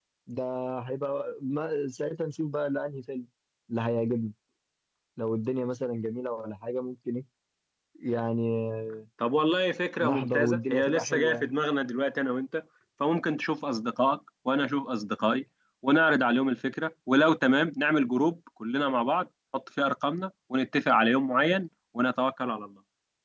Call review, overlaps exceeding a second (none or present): present